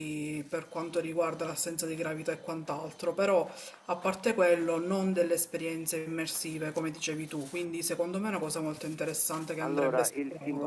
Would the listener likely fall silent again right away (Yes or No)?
No